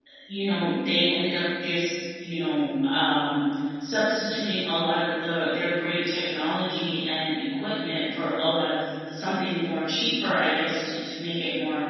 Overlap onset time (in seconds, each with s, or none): none